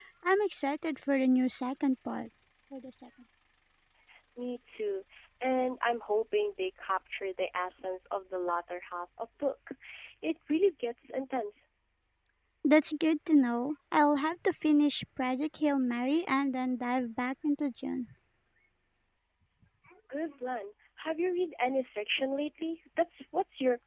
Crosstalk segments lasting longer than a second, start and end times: none

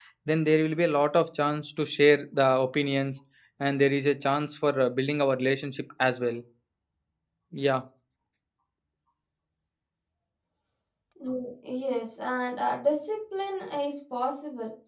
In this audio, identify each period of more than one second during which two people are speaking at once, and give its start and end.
none

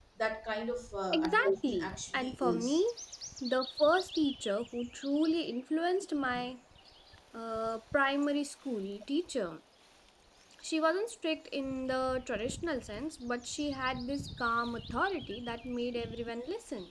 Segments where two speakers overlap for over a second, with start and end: 1.1-2.8

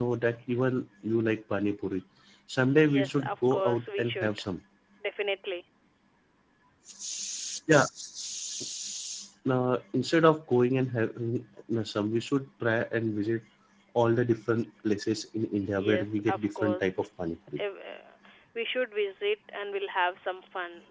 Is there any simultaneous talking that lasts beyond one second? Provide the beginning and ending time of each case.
2.9-4.3, 15.8-17.1

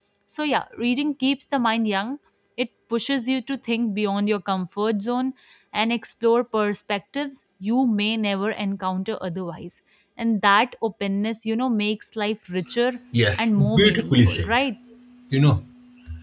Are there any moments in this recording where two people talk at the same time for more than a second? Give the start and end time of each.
13.4-14.6

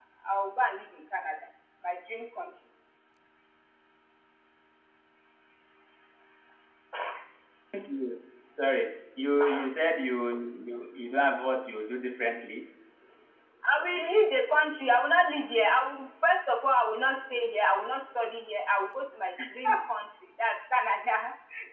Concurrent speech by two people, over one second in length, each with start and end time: none

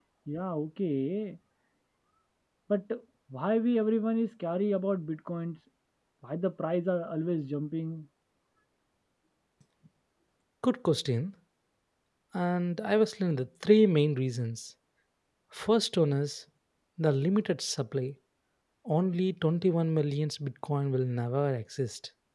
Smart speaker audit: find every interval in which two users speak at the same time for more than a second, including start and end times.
none

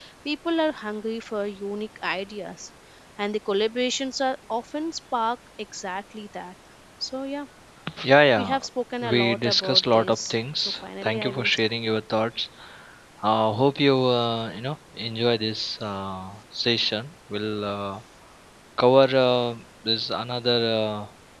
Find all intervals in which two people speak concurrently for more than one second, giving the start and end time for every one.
9.0-11.5

